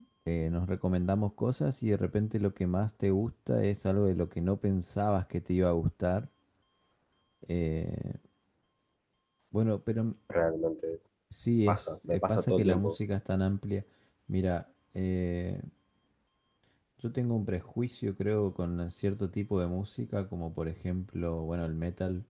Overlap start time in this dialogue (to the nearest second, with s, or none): 12 s